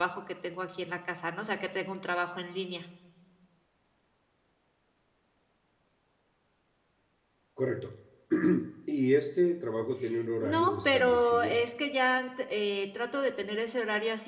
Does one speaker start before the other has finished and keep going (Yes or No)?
Yes